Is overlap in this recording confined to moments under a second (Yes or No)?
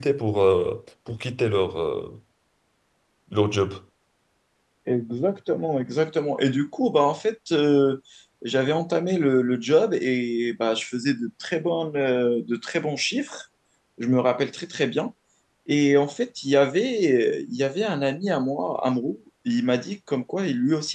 Yes